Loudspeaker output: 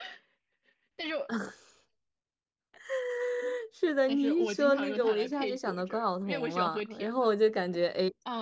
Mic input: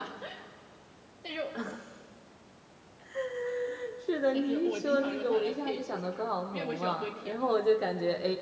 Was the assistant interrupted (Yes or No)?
No